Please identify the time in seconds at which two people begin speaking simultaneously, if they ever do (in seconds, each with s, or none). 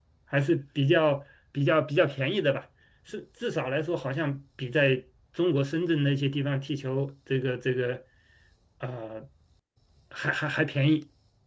none